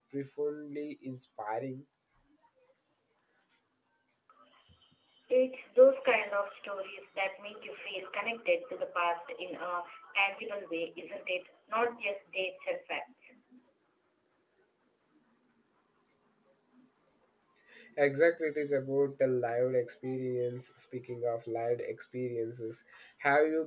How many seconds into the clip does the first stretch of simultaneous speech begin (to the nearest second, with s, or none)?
none